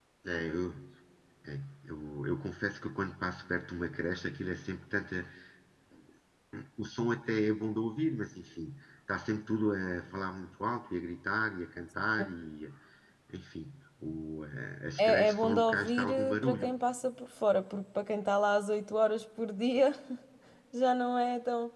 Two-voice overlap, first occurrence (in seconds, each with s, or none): 15.0 s